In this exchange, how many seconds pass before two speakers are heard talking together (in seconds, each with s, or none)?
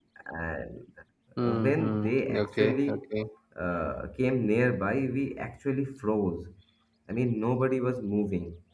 1.6 s